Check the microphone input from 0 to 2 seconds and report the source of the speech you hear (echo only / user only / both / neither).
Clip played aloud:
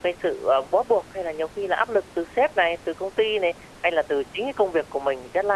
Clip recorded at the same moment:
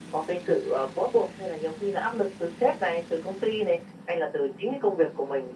echo only